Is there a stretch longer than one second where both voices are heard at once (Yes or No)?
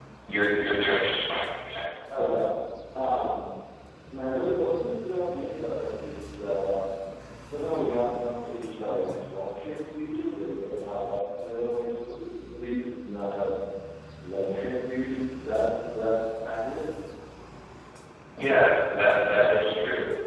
No